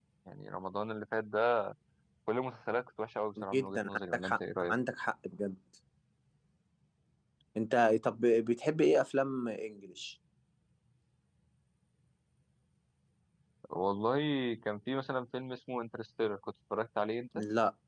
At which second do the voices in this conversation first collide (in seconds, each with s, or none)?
3.5 s